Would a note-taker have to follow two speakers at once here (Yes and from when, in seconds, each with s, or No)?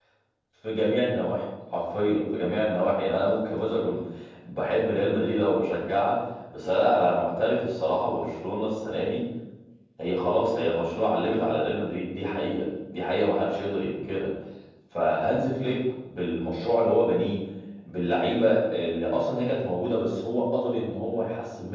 No